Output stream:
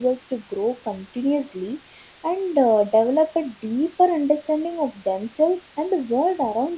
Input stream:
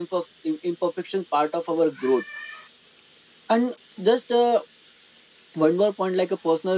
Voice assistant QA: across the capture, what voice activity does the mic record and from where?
user only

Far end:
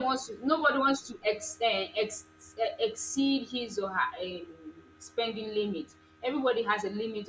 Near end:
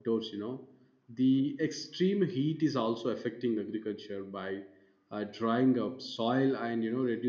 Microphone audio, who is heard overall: user only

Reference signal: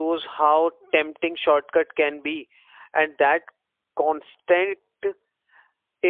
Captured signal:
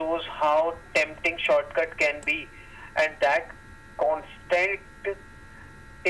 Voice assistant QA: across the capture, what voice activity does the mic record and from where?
echo only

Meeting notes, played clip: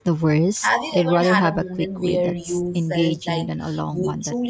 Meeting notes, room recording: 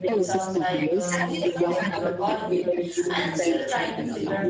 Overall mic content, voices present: both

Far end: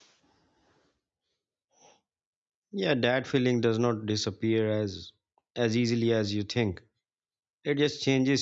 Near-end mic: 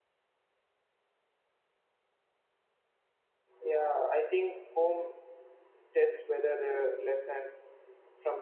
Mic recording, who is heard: user only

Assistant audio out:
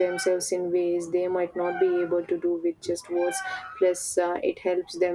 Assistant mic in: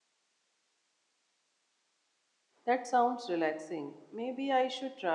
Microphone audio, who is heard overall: user only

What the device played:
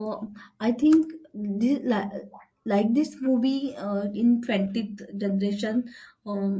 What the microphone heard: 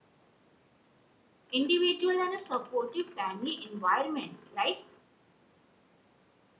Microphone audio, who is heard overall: user only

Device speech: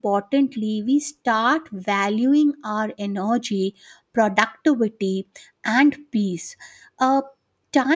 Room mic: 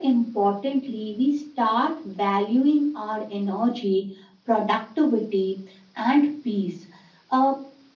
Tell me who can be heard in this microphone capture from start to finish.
echo only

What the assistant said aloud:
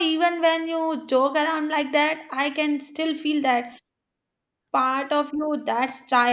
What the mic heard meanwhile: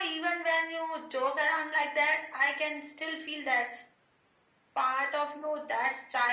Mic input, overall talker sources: echo only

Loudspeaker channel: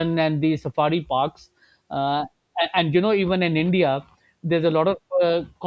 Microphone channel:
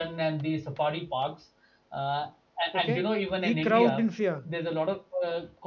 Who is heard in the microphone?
both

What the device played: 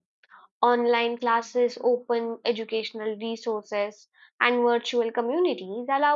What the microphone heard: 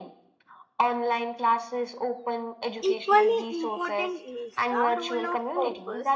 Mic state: both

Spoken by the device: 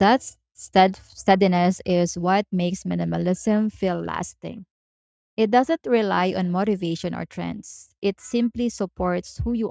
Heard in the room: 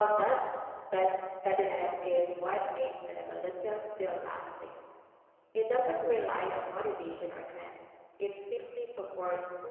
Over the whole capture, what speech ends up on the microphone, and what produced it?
echo only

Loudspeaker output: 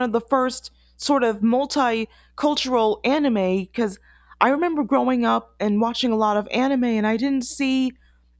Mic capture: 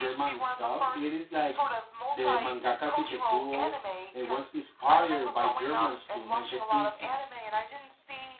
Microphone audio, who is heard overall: both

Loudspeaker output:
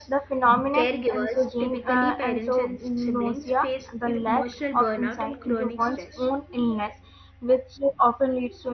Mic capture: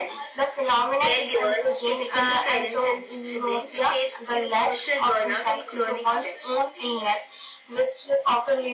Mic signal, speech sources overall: echo only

